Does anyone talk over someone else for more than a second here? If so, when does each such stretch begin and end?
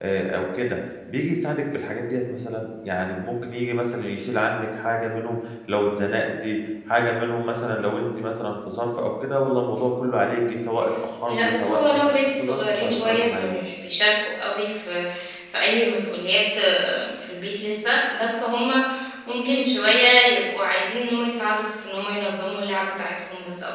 11.3-13.5

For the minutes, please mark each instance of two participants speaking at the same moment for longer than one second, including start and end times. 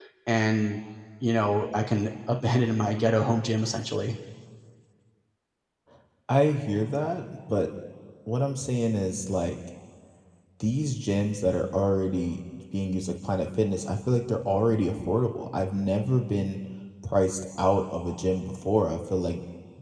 none

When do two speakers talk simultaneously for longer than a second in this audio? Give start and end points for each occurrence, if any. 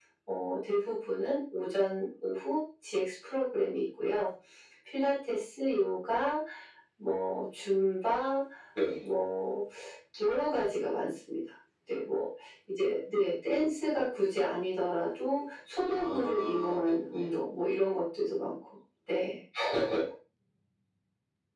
15.9-17.3

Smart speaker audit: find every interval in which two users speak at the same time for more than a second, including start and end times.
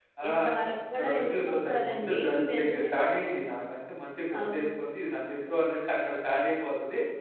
1.0-2.9

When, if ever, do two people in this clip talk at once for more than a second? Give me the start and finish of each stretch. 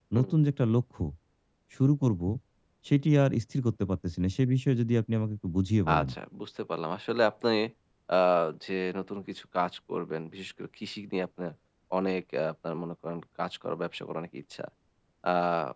none

